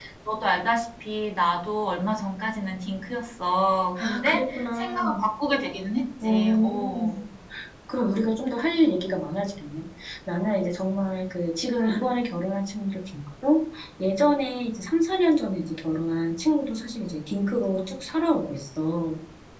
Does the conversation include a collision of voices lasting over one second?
Yes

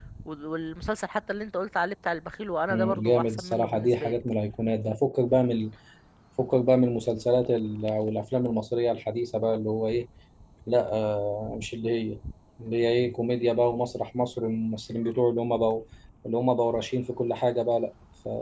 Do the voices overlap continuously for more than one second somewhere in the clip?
Yes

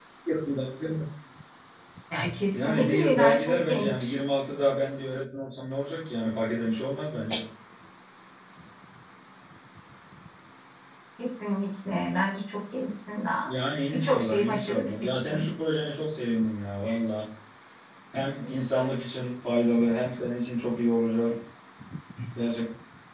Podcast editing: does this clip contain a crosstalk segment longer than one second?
Yes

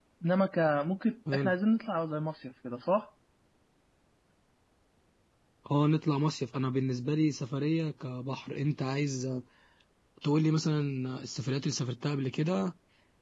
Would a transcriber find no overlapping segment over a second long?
Yes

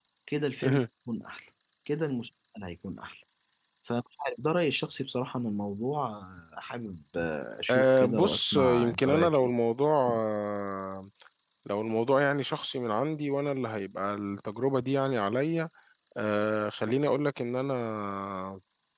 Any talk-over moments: Yes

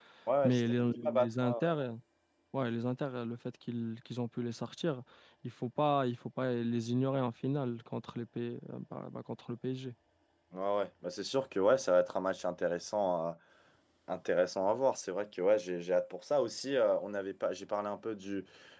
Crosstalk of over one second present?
Yes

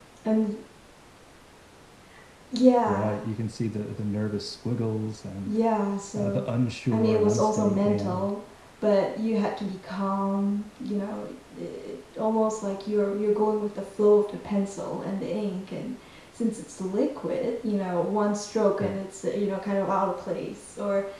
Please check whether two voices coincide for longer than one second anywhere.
Yes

